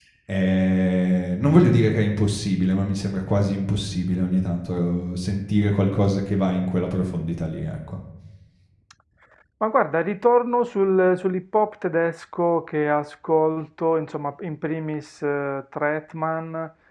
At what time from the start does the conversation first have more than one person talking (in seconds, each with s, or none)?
none